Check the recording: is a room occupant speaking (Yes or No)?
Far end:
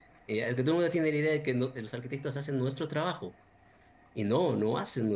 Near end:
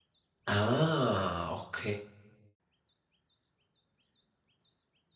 Yes